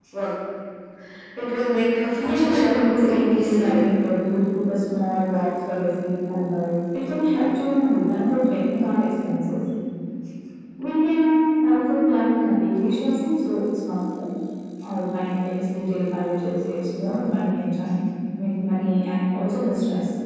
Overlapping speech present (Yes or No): Yes